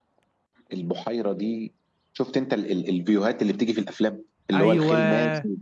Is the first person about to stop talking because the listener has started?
No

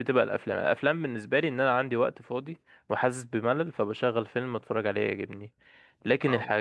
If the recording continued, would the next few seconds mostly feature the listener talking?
No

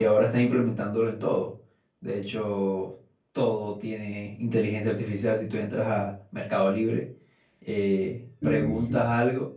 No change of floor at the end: Yes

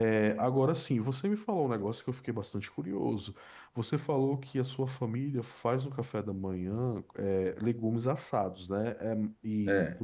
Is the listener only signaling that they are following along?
Yes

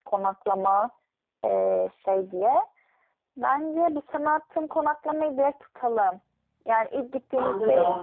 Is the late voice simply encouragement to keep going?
Yes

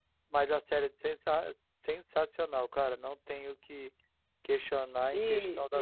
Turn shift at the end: Yes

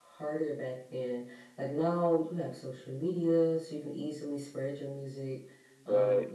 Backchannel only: Yes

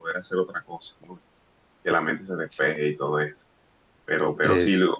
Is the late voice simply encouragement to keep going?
Yes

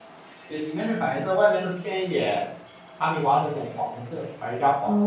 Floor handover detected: Yes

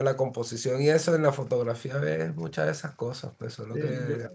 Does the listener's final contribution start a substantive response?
Yes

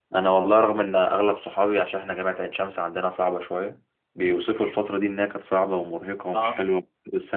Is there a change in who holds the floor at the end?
No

